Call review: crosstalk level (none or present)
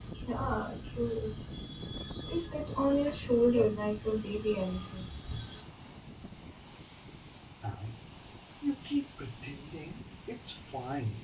none